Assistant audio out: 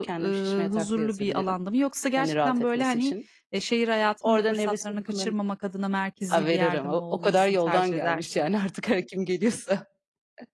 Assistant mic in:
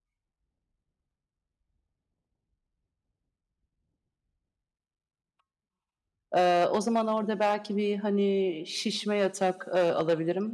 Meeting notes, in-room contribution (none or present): present